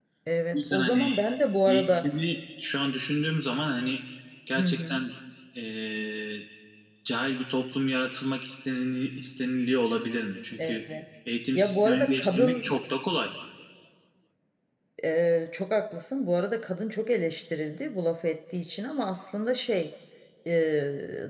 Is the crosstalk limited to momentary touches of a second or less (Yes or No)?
No